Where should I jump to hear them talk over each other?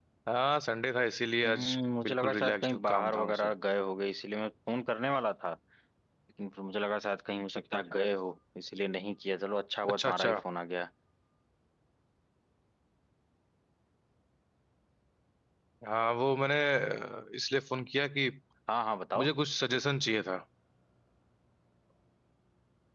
1.5 s

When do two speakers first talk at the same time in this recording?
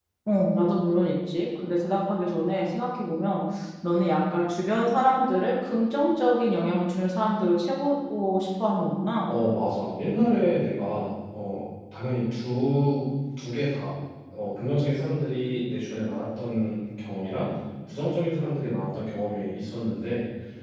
none

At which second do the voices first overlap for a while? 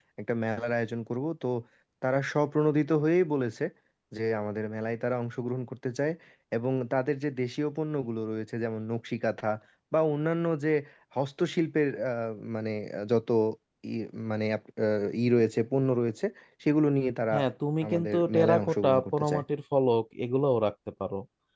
17.9 s

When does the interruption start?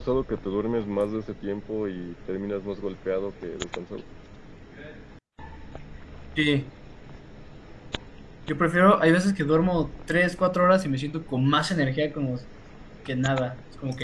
none

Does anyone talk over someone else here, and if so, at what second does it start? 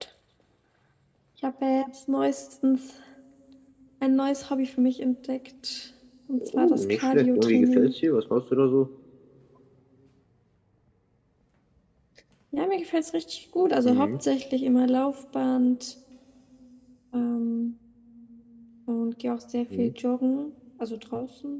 6.4 s

